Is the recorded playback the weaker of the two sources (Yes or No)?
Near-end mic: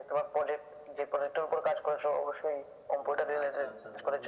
No